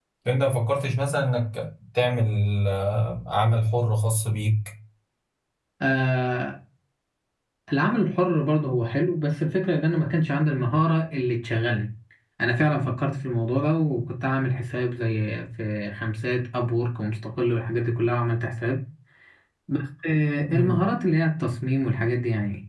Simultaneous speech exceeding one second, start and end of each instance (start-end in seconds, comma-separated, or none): none